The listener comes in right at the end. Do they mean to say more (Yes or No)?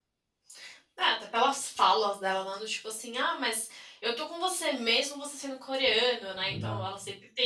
No